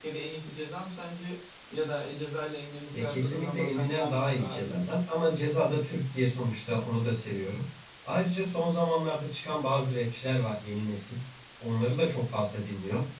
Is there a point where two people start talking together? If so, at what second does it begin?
2.9 s

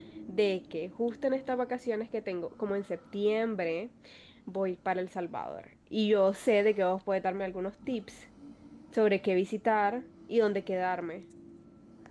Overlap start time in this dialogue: none

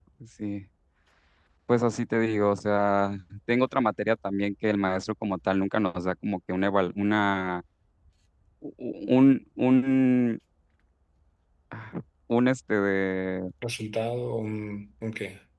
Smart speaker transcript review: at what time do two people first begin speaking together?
none

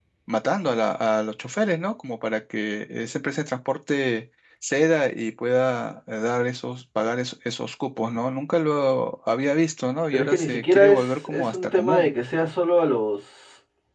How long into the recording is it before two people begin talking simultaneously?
10.1 s

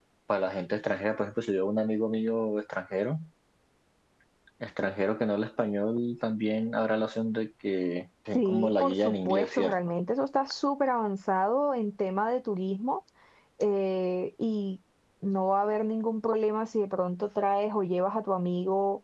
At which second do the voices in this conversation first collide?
8.3 s

